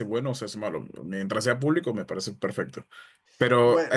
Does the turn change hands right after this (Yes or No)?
No